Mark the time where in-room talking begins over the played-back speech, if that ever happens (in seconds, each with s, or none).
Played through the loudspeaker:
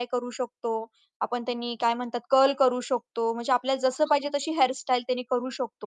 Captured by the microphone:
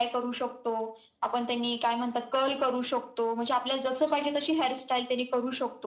none